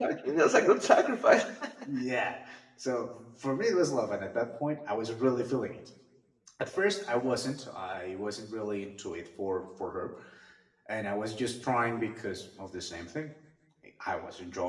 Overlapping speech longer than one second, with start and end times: none

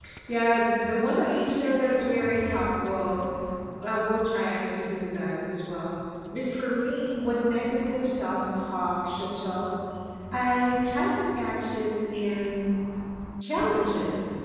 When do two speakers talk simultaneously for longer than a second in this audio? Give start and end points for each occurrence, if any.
none

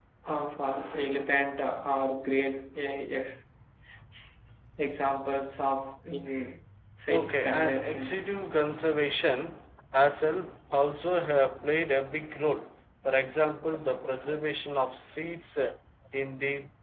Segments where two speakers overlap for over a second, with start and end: 7.1-8.3

